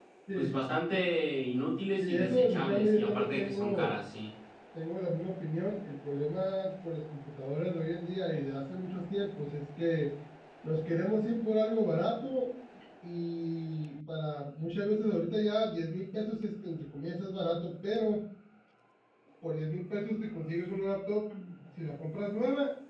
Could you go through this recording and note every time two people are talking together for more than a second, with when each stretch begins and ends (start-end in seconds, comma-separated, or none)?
2.0-4.0